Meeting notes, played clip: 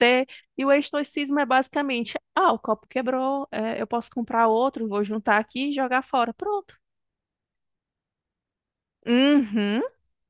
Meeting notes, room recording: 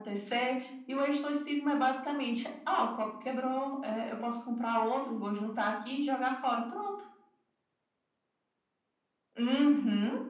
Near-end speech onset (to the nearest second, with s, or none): none